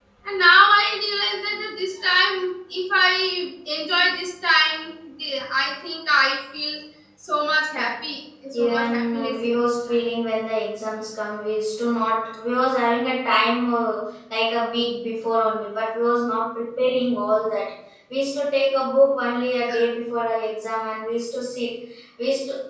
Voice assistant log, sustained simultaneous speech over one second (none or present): present